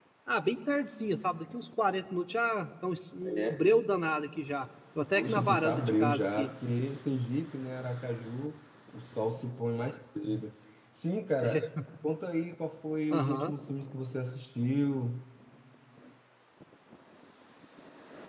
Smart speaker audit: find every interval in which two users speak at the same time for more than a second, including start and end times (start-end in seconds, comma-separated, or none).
5.1-6.5